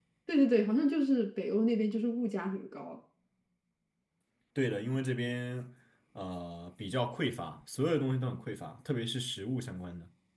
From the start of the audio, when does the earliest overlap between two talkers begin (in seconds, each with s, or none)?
none